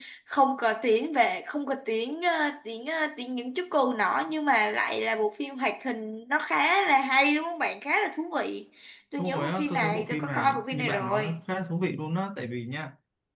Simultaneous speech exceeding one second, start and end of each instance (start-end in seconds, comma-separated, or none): 9.2-11.3